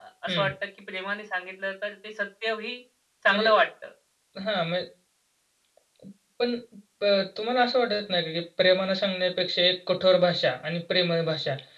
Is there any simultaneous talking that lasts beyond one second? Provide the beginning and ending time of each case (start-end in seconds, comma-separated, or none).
none